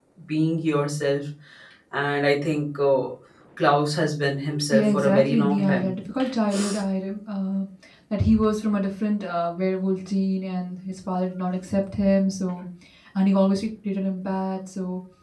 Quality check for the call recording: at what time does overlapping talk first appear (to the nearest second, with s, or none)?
5 s